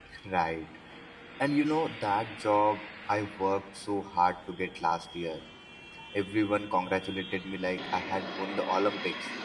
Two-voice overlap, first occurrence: none

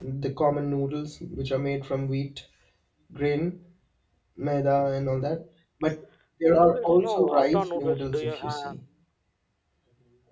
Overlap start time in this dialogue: 6.5 s

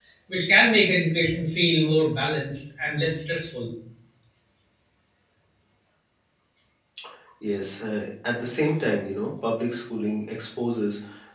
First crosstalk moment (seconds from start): none

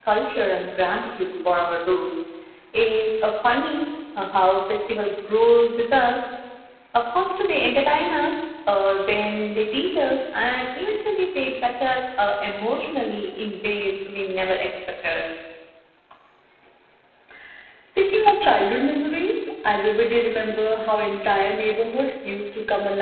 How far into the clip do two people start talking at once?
none

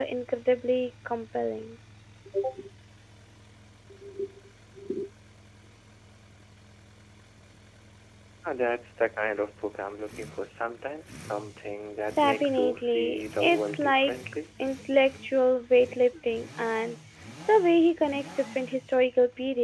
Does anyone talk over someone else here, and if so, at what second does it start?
12.2 s

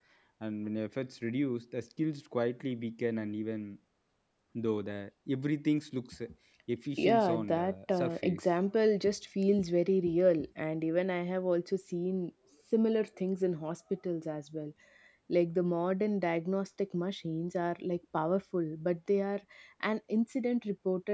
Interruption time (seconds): 7.0 s

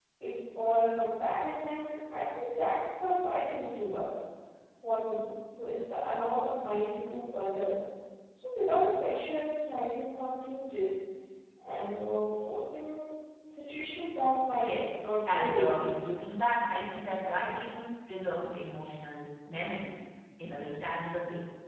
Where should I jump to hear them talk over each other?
14.6 s

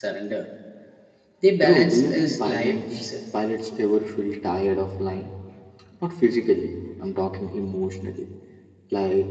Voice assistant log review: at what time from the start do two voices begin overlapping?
1.6 s

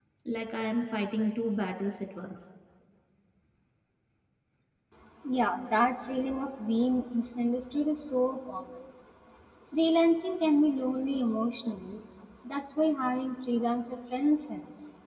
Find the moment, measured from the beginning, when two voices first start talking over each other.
none

